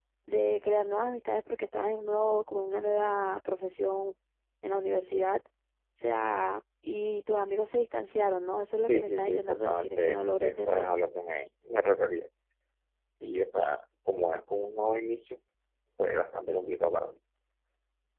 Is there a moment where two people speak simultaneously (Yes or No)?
Yes